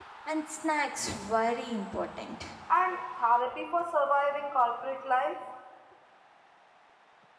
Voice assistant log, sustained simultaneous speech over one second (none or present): none